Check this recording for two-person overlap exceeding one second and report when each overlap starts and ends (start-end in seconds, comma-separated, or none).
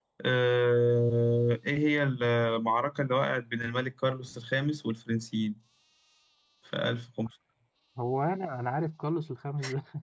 none